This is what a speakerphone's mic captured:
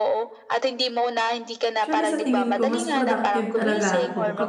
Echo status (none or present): present